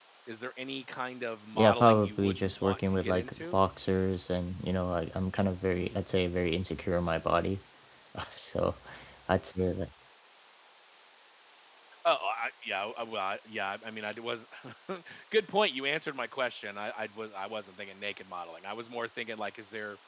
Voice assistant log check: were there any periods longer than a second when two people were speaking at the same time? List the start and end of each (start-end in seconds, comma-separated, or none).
1.6-3.6